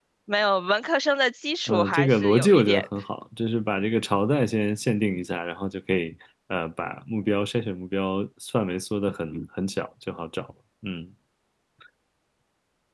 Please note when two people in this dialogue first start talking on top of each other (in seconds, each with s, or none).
1.7 s